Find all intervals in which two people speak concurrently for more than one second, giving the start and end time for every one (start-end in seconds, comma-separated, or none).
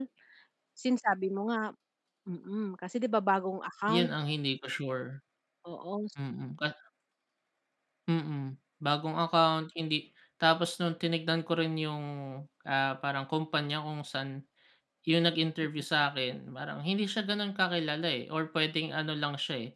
none